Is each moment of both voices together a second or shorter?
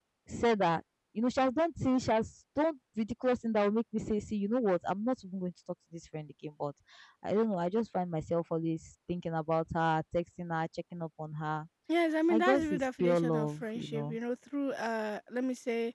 No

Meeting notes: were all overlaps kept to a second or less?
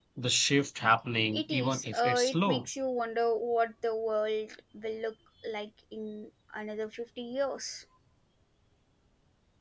No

